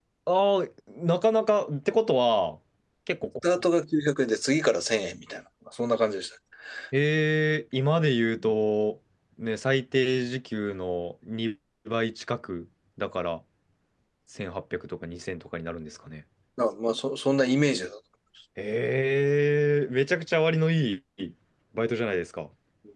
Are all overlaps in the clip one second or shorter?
Yes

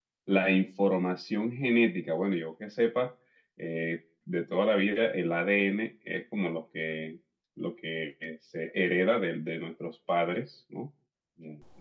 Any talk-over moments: No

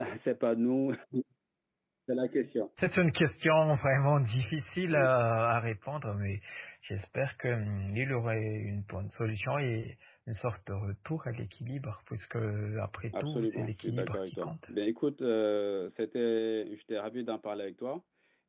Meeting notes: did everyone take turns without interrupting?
No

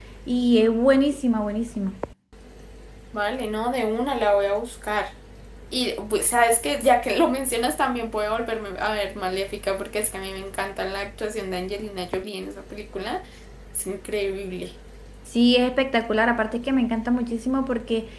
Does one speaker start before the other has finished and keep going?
No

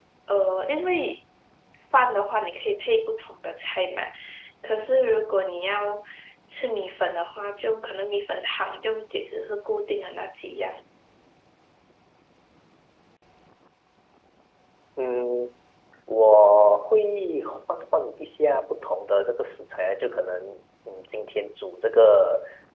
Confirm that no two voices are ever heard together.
Yes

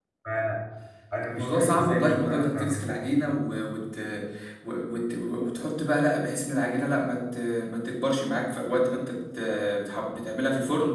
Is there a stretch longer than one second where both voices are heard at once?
Yes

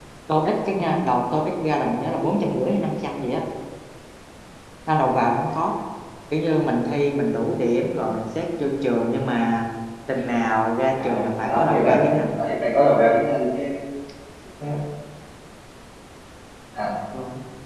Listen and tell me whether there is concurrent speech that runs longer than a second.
Yes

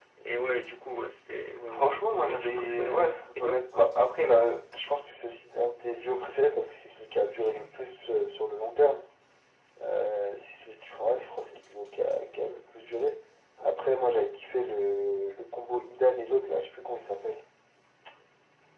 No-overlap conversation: No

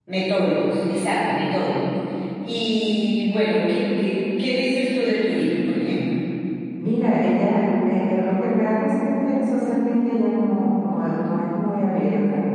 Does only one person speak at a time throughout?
Yes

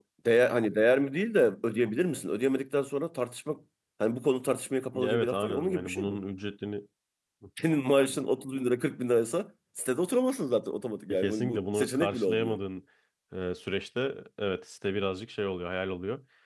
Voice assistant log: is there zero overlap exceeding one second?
No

